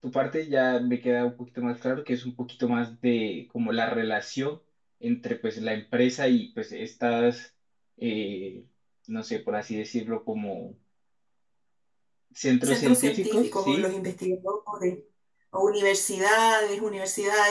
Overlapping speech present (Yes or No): Yes